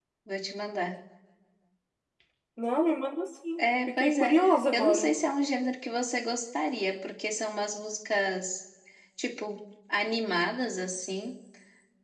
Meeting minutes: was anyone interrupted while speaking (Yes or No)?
Yes